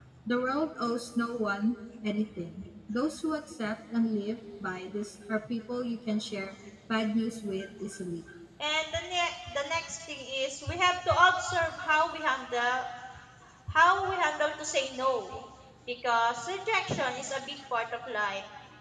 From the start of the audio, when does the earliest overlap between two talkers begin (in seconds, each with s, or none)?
none